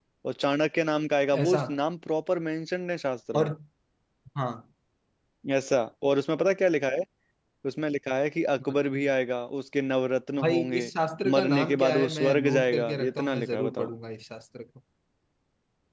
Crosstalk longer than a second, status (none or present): present